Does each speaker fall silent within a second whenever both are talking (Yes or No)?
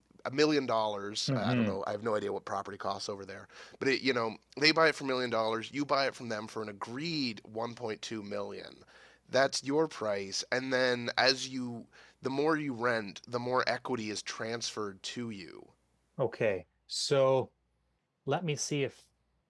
Yes